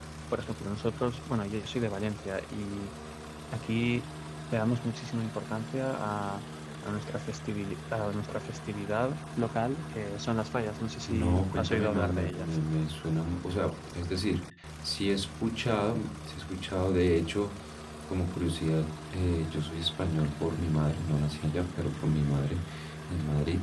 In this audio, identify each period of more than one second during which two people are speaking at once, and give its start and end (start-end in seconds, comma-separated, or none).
11.1-12.6